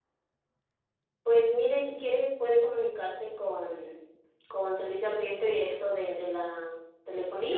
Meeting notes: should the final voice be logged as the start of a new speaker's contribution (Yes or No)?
Yes